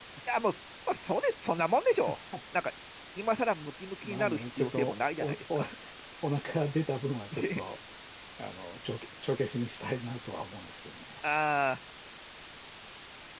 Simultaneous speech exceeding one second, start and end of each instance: 4.0-5.6

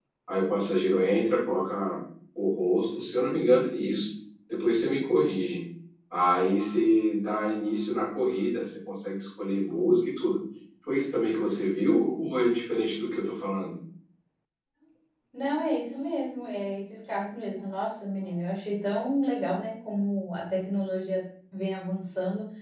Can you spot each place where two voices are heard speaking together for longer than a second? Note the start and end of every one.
none

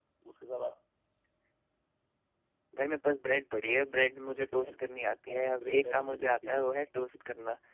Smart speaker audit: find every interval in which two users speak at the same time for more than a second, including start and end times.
5.3-6.6

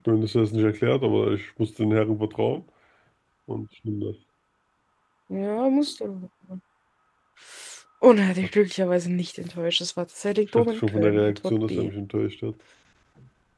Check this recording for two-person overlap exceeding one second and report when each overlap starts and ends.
10.6-11.9

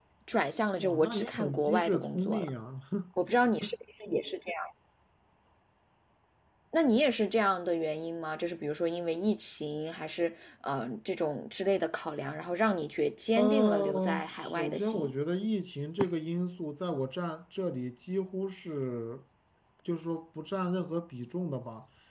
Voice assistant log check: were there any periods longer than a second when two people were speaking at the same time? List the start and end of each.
0.8-2.5, 13.3-15.1

